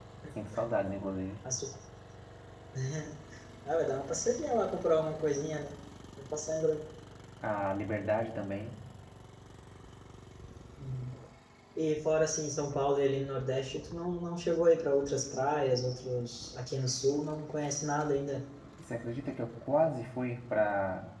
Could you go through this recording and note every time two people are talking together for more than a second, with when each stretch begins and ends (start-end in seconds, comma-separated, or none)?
none